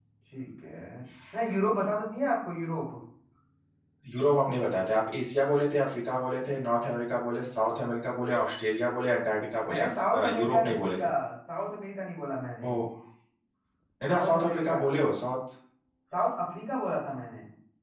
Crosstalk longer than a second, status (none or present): present